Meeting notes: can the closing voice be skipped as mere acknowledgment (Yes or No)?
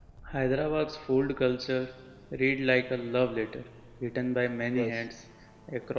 Yes